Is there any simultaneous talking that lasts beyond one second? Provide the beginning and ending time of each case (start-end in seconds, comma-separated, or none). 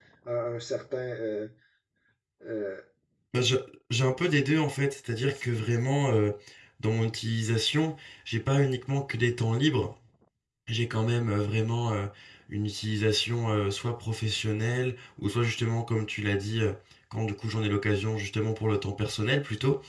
none